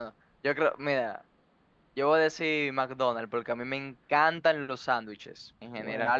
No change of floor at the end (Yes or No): Yes